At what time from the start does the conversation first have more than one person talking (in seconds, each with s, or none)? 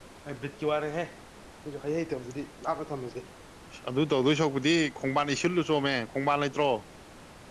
none